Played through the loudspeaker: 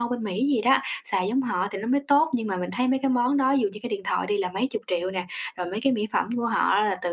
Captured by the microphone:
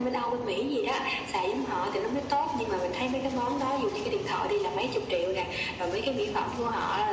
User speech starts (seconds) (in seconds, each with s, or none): none